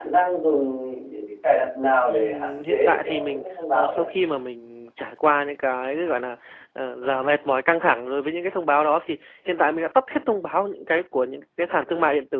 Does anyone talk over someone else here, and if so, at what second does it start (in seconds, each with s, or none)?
2.1 s